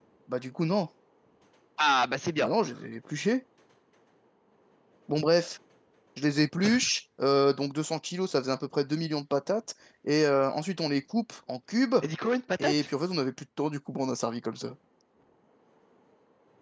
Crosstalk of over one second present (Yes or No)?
No